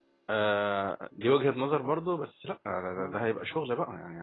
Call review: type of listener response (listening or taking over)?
listening